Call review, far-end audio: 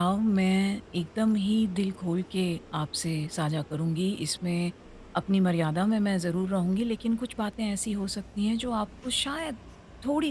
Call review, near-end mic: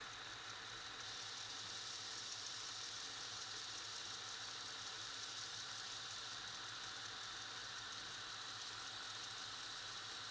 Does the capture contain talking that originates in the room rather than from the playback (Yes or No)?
No